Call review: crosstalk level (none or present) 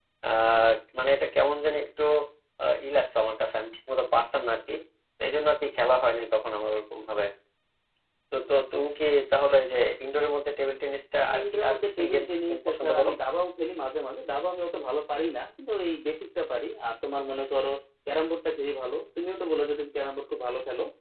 present